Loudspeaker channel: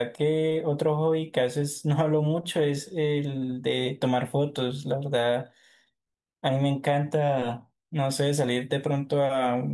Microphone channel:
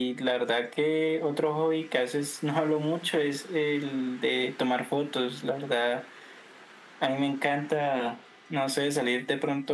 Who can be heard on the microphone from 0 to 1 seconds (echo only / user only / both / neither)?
echo only